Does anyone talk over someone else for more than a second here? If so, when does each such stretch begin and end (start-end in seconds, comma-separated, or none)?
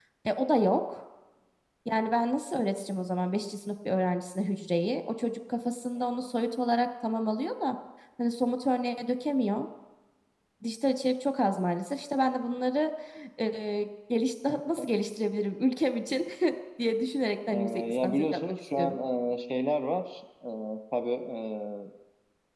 17.5-19.0